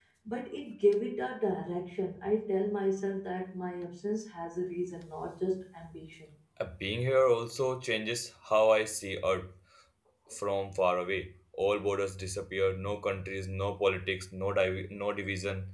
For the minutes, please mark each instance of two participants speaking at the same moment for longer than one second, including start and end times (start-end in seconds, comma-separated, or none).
none